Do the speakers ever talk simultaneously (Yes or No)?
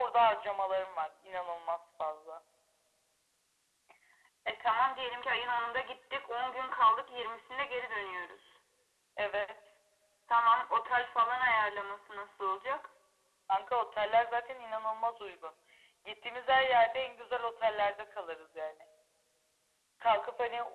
No